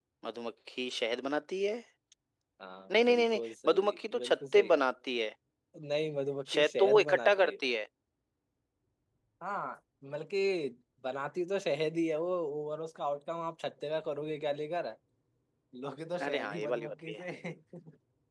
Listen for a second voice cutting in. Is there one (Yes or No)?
Yes